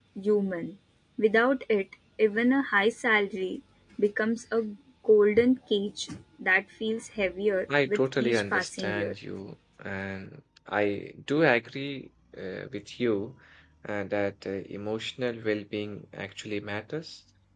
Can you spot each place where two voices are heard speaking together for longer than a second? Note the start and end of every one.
7.8-9.1

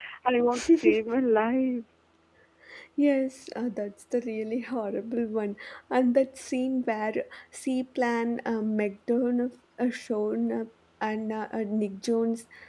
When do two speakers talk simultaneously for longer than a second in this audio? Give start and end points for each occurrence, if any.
none

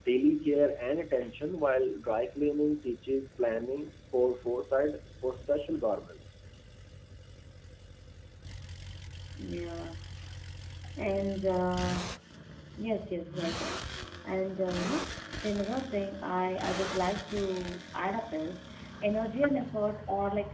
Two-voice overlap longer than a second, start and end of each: none

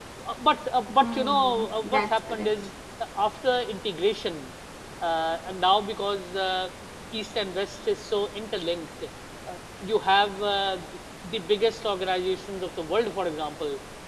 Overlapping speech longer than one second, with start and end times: 1.0-2.5

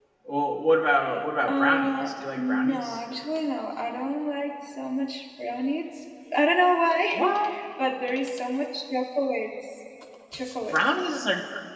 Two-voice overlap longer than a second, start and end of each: 1.4-3.0

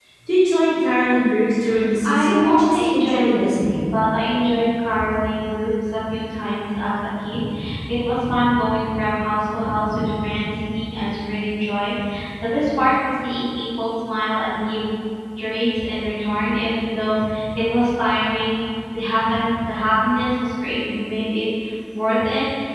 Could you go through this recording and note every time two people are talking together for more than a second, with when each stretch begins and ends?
2.0-3.9

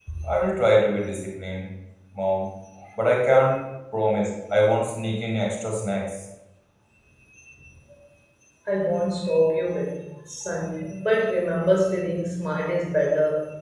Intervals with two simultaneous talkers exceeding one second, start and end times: none

